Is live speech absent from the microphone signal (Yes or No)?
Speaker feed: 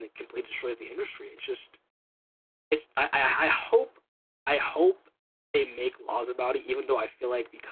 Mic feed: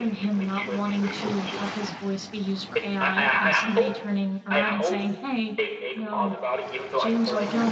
No